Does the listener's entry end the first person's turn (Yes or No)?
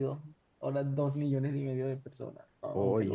Yes